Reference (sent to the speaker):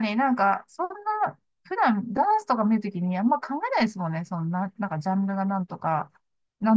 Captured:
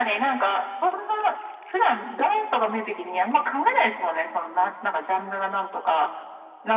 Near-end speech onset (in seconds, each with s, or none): none